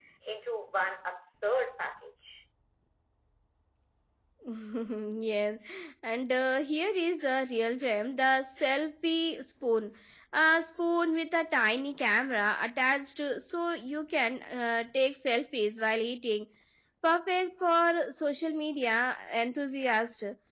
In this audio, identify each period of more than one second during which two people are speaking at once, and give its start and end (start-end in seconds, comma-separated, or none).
none